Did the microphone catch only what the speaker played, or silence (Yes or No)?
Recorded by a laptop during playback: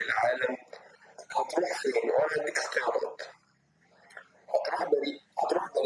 Yes